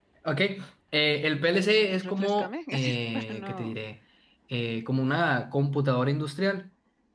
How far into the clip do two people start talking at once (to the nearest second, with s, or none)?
1 s